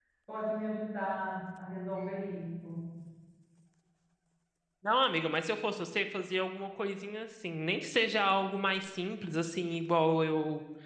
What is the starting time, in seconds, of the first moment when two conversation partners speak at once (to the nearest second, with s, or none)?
none